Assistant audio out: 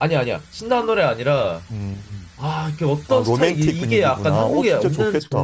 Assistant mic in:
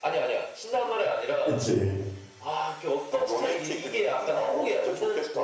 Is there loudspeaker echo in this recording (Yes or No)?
Yes